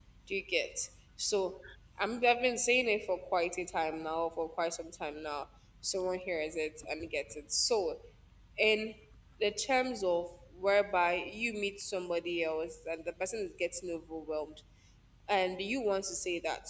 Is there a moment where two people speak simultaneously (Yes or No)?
No